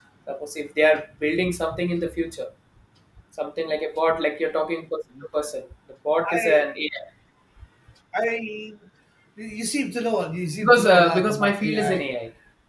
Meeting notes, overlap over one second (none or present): present